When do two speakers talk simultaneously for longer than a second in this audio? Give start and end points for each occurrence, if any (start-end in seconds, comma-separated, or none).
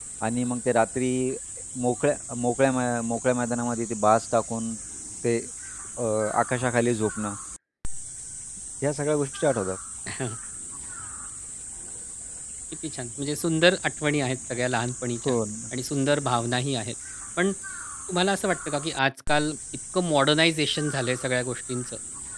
none